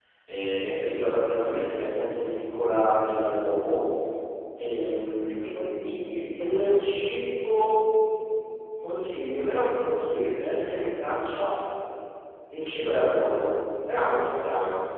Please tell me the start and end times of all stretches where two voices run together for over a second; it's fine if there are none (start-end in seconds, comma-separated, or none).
5.3-6.8